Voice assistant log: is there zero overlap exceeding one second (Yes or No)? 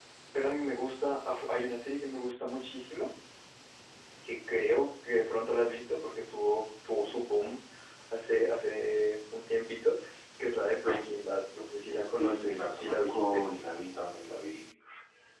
No